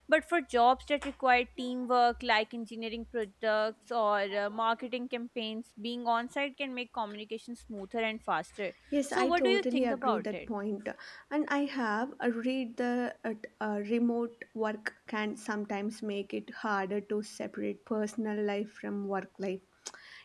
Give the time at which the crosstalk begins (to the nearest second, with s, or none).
9 s